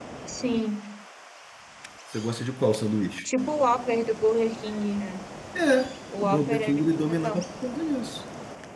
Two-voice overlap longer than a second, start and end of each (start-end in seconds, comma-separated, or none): 6.2-7.4